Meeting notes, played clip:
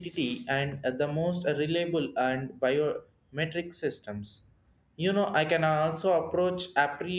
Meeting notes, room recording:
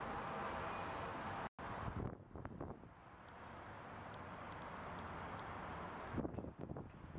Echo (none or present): none